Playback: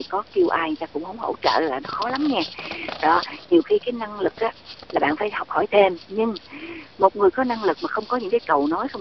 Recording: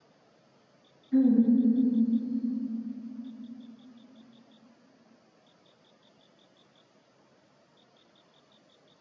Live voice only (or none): ừm.